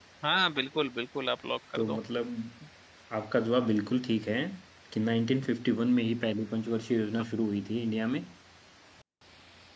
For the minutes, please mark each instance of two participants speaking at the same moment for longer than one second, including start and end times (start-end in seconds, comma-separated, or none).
none